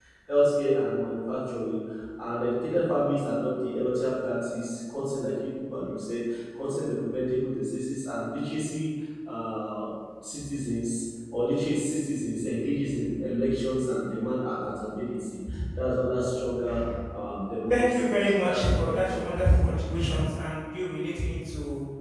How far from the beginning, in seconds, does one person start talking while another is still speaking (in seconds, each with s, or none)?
17.7 s